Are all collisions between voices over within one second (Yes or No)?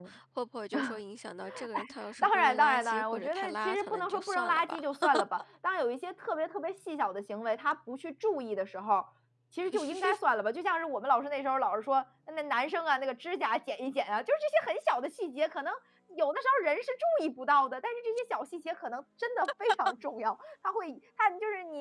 No